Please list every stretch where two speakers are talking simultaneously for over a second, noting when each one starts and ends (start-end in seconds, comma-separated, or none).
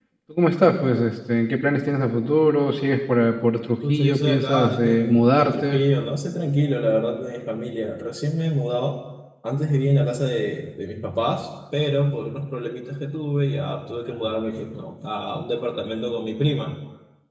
3.9-5.8